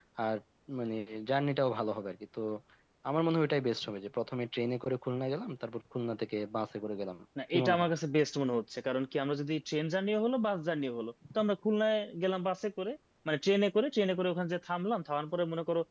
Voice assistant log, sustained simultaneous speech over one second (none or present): none